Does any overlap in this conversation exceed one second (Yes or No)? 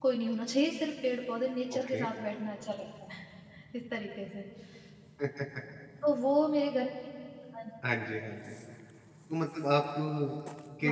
No